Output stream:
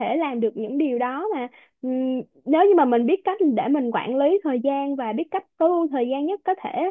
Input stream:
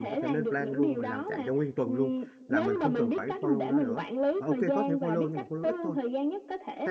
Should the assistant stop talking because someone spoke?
Yes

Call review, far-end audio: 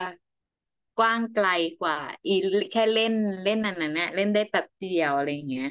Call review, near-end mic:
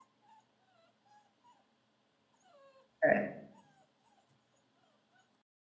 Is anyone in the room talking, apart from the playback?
Yes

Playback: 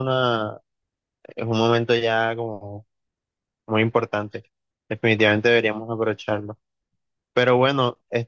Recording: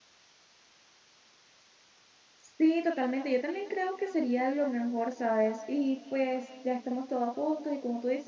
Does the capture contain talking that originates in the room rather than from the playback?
Yes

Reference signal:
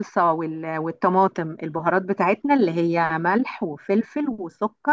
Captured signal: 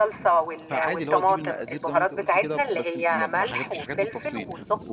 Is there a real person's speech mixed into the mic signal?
Yes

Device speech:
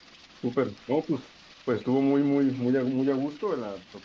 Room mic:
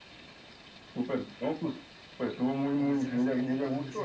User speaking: Yes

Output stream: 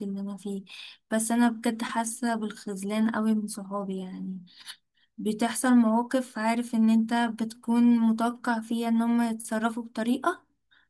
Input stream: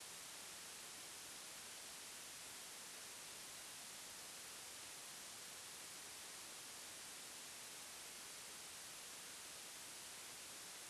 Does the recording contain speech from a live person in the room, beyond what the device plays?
No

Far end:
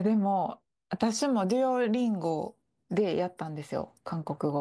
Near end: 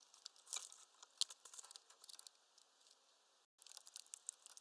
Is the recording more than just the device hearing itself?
No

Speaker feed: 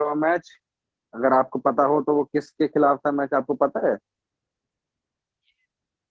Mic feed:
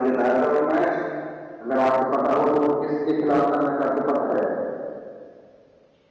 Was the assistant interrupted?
No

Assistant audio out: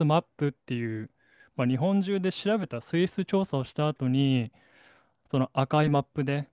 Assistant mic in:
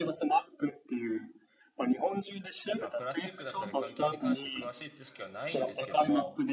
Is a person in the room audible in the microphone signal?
Yes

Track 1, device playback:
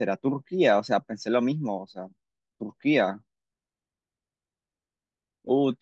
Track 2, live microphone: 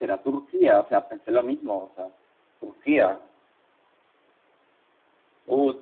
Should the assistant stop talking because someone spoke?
No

